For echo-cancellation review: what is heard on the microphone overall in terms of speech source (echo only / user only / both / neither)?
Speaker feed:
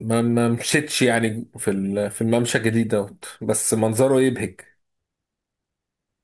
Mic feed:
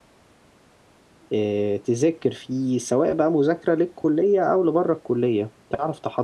user only